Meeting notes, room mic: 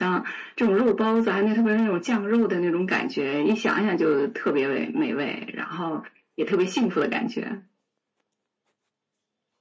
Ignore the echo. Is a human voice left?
No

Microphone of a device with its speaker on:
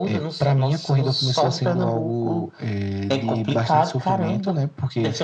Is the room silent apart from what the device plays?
Yes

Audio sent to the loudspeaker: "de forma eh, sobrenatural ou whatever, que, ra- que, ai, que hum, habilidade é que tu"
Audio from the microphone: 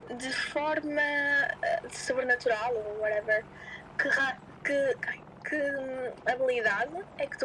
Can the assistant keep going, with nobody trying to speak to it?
Yes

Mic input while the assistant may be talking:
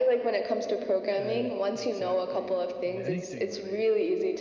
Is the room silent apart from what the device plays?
No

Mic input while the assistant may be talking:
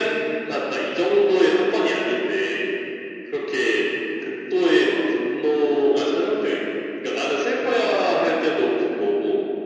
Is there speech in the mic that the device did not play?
No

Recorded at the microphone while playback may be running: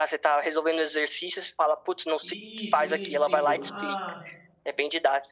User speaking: Yes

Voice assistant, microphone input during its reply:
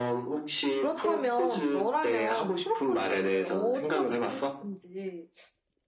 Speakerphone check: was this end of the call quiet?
No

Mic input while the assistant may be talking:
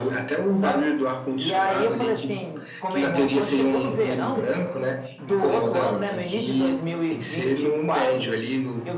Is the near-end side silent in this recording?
Yes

